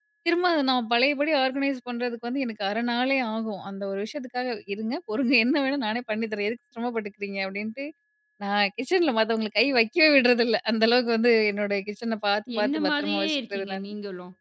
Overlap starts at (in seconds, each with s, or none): 12.5 s